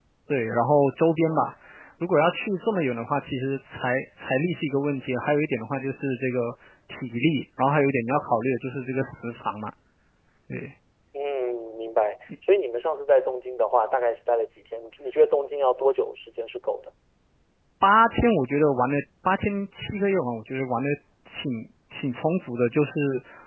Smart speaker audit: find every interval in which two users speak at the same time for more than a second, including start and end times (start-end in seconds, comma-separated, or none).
none